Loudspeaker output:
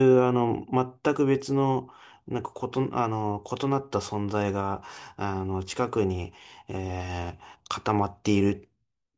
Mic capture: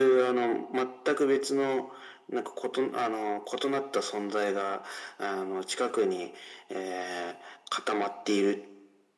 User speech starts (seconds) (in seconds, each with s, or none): none